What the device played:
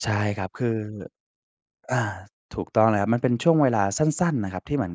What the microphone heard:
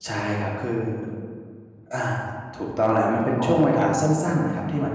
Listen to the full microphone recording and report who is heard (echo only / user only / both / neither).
both